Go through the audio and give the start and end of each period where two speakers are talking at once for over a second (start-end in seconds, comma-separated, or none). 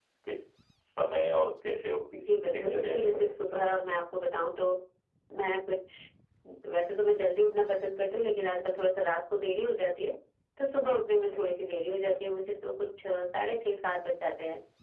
2.1-3.8